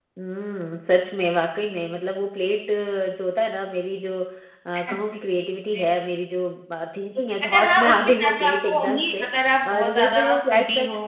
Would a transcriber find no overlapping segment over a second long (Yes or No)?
No